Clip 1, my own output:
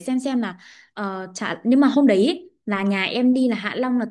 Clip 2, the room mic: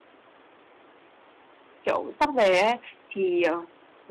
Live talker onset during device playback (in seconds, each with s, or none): 1.8 s